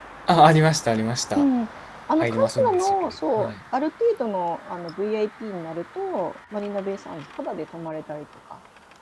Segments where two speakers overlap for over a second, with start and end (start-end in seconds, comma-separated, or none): 2.2-3.5